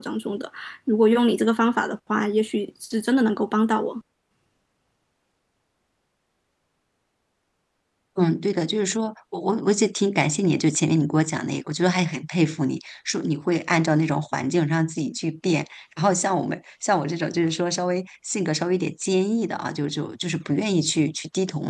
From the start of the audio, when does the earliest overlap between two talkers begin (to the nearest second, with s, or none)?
none